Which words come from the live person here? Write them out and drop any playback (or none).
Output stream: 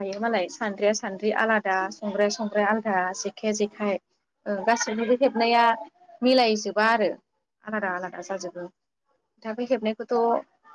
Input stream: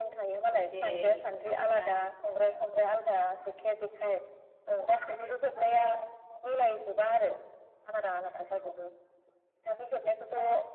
जेरै हामनानै ला